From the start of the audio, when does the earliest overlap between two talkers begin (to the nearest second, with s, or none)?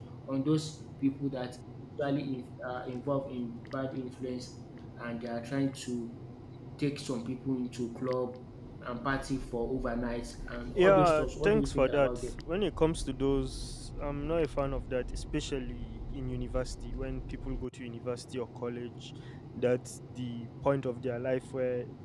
11 s